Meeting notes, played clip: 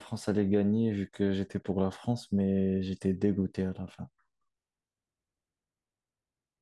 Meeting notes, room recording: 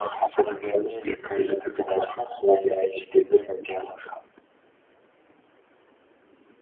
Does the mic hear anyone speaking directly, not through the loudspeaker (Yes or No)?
No